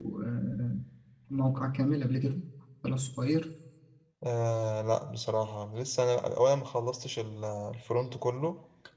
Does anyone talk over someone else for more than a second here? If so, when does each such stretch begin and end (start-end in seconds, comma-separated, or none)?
none